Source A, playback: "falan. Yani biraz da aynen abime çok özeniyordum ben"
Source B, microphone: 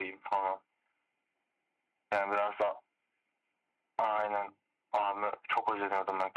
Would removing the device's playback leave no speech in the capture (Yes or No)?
Yes